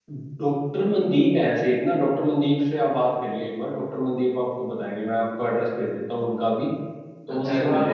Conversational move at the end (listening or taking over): taking over